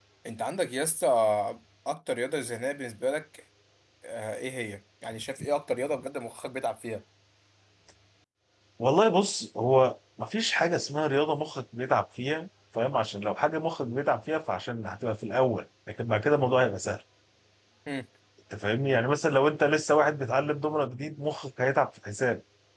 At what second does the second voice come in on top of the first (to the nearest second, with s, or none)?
none